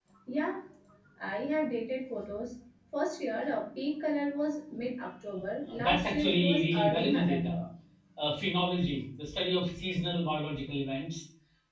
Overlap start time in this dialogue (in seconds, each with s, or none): 5.7 s